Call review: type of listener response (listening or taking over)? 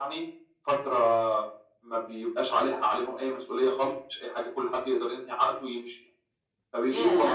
listening